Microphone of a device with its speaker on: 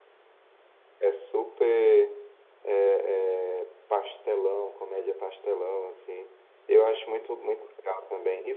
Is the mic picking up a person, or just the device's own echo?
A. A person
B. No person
A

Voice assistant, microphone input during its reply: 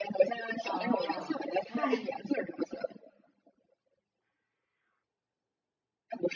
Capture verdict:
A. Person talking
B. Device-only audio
A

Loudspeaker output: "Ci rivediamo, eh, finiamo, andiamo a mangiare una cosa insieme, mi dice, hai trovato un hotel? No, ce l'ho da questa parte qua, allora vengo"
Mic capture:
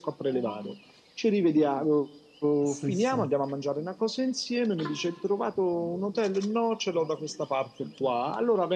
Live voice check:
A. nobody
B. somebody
B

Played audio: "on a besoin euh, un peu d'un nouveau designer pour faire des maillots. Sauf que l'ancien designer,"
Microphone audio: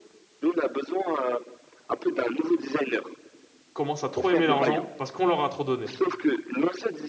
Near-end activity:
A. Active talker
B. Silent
A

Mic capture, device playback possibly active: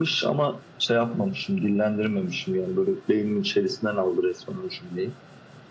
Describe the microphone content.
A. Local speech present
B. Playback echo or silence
B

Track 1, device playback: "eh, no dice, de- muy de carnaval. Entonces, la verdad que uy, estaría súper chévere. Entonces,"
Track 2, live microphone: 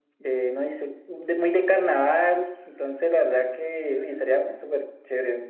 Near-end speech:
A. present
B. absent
B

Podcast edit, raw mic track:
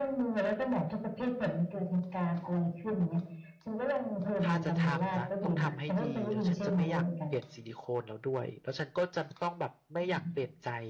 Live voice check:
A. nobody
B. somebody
B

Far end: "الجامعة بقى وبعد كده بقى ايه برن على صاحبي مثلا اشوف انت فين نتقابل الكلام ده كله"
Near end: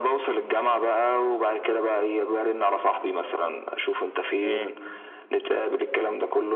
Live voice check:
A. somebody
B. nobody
A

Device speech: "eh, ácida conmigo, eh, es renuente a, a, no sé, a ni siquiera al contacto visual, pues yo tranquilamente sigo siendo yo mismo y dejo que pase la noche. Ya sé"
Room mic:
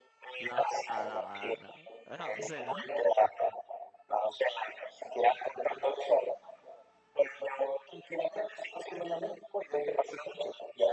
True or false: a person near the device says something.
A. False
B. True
B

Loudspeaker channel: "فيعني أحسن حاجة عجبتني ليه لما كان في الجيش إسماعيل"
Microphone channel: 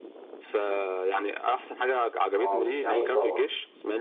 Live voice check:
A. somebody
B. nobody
A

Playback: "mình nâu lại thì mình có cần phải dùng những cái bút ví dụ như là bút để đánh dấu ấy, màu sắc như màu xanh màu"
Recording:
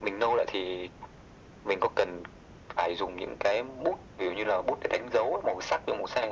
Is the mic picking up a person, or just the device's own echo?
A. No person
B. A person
A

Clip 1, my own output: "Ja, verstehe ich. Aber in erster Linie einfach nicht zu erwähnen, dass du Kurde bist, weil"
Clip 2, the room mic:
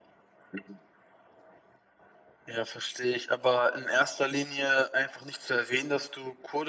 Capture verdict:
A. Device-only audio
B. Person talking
A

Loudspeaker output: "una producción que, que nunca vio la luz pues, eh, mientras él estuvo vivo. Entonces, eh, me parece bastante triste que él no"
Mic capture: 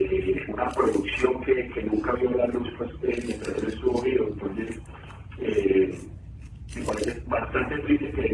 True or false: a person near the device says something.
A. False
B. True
A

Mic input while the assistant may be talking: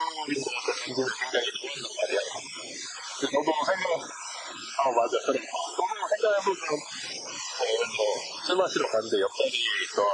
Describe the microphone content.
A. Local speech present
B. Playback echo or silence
B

